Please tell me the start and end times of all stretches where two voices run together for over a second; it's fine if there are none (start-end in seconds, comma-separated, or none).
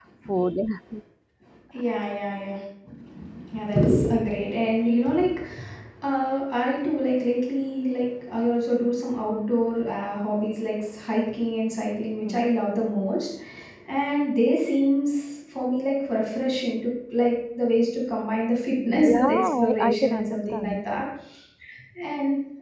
19.1-20.8